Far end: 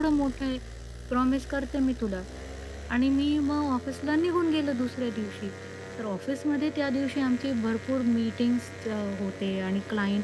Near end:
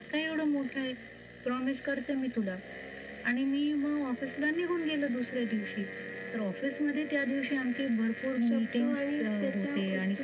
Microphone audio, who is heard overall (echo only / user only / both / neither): both